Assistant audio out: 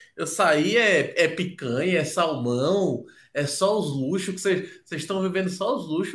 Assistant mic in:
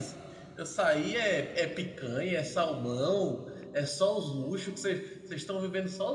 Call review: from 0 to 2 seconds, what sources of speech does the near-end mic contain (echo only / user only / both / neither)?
echo only